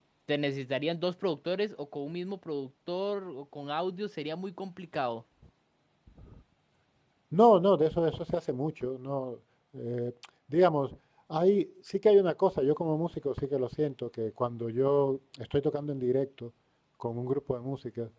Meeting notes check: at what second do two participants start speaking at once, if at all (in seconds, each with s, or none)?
none